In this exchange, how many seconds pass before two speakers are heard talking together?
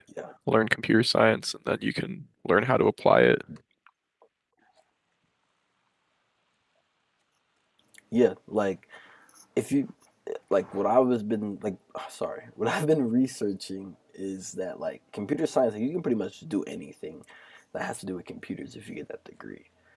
none

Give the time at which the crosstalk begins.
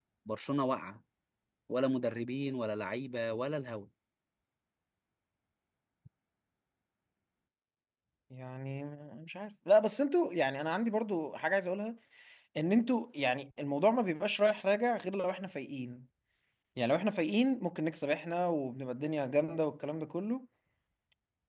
none

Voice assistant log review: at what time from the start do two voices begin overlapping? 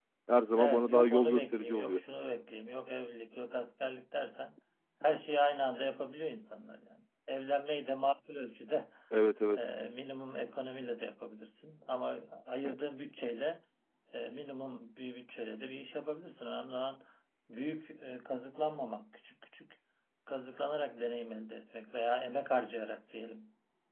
0.6 s

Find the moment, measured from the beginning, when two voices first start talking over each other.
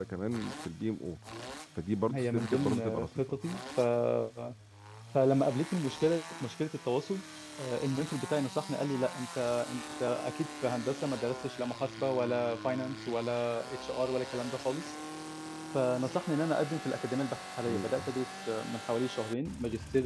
2.1 s

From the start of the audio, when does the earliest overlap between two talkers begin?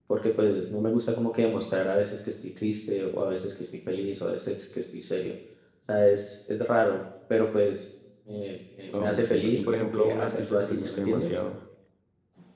8.9 s

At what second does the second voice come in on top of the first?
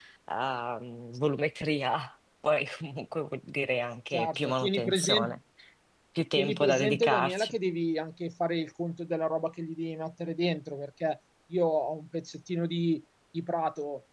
4.1 s

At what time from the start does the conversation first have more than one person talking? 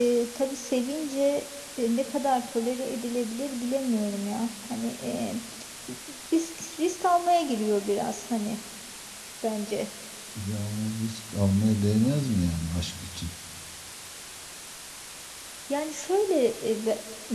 none

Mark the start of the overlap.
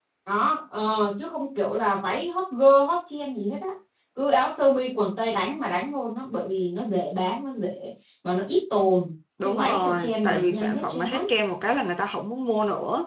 9.4 s

